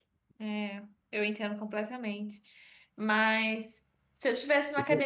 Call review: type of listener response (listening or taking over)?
listening